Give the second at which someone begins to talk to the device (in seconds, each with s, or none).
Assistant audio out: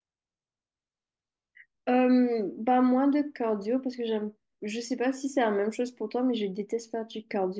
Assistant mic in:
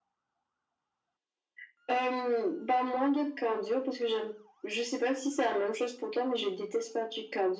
none